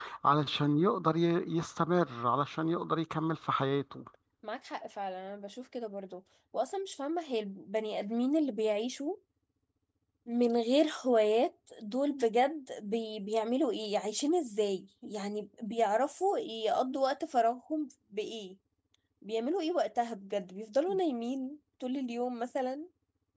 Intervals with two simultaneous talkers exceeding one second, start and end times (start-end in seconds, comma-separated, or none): none